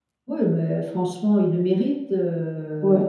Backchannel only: No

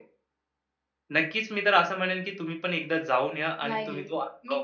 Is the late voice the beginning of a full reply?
Yes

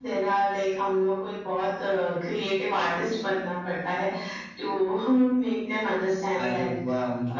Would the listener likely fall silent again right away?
No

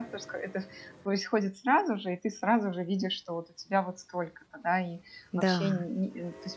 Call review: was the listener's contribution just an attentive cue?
Yes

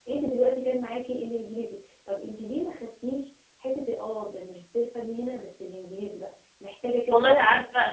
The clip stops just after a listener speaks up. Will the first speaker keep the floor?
No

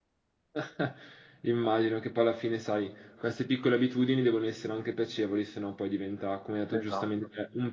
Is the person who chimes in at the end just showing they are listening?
Yes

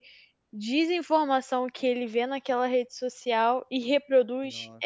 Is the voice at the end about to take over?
Yes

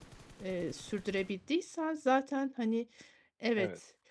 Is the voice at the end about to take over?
No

